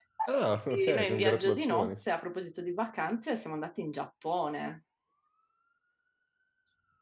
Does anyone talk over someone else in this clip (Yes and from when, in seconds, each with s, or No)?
Yes, from 0.7 s